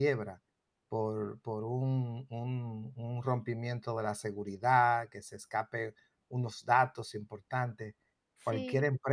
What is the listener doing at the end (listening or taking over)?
listening